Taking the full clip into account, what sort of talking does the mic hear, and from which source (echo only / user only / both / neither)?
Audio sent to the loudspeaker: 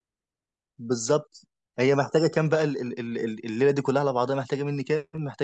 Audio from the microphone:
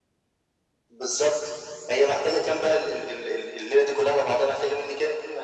echo only